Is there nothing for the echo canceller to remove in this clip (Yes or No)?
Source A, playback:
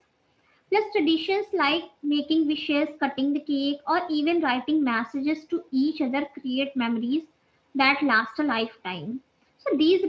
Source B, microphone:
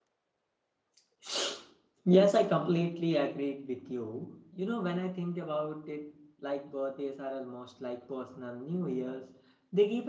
Yes